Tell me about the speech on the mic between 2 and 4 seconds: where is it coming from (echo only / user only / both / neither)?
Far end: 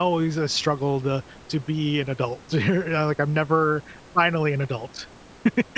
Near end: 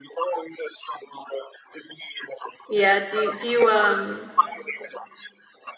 both